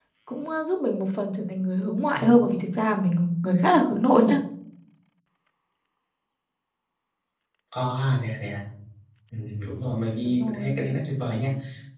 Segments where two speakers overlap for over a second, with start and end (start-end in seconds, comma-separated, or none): none